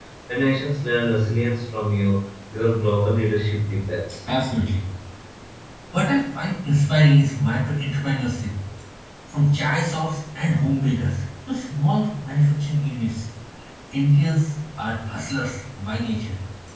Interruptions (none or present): none